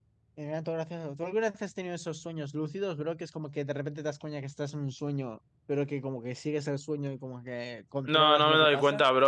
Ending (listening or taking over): taking over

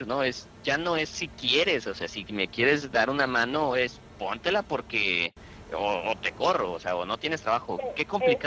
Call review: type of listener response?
taking over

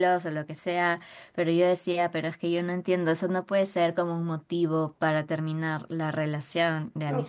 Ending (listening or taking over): taking over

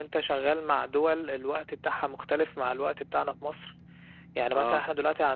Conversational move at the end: listening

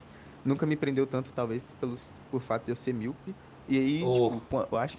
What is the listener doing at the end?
listening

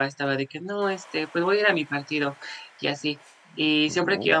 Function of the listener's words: listening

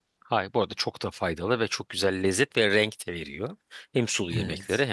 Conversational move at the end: listening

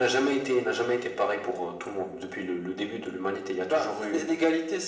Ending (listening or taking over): taking over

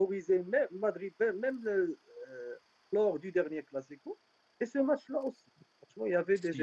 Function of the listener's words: listening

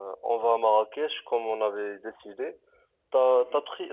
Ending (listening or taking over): listening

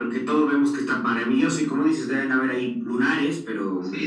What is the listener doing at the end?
taking over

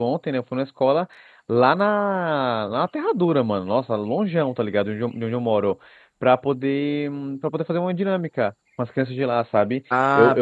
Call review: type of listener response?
taking over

